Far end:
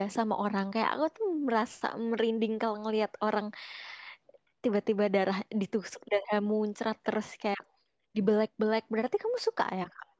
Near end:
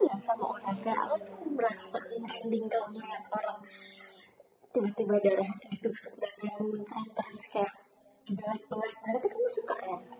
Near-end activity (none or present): none